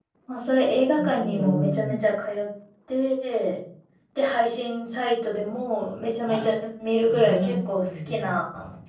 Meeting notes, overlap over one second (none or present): present